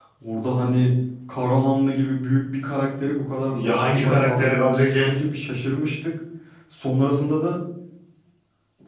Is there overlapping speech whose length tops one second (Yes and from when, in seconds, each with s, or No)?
Yes, from 3.5 s